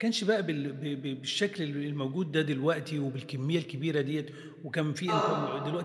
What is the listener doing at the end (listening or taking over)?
listening